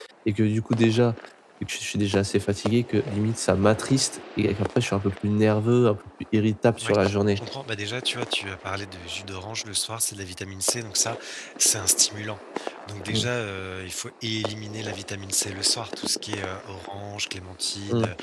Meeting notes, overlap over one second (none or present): none